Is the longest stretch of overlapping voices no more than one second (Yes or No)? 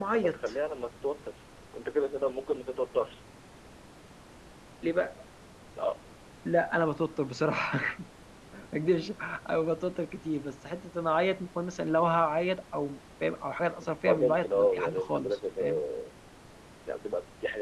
No